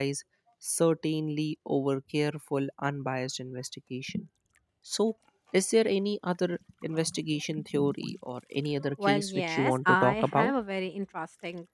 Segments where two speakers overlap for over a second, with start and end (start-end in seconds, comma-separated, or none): 9.0-10.5